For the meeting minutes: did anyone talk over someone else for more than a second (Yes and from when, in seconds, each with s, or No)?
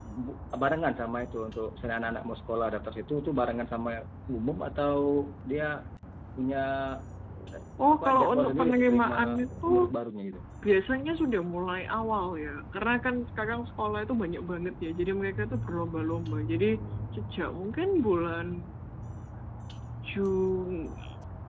Yes, from 7.9 s